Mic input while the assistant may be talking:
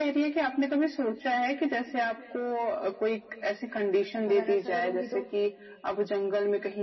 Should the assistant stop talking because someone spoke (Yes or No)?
Yes